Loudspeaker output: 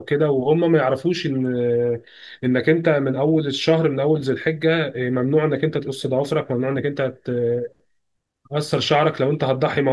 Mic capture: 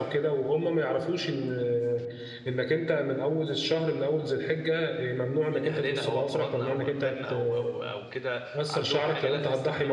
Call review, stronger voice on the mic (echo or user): echo